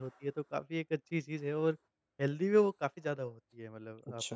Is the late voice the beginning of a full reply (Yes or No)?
No